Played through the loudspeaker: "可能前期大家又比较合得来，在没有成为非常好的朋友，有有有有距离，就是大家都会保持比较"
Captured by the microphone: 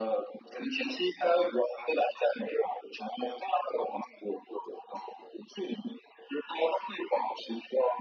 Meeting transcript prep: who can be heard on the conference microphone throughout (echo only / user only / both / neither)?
echo only